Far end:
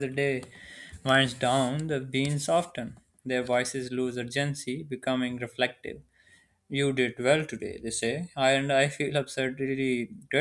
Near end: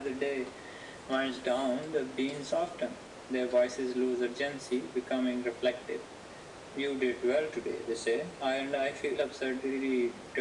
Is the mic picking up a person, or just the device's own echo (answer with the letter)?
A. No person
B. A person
A